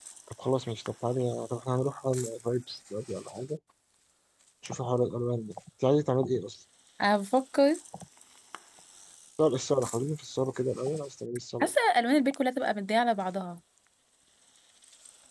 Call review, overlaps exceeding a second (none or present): none